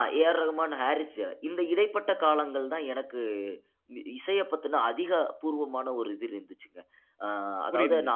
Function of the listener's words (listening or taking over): listening